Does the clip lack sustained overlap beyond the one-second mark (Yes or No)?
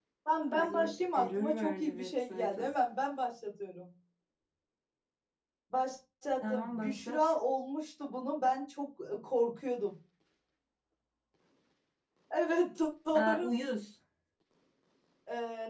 No